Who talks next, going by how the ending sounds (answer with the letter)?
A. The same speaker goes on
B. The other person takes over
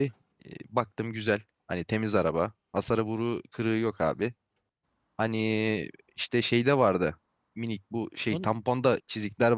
A